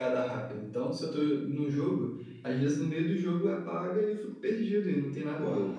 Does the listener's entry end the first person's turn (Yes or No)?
Yes